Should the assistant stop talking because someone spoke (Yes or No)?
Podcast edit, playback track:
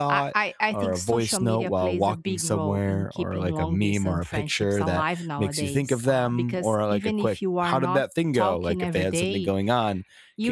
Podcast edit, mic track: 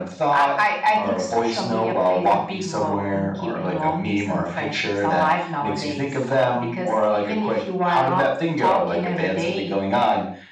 No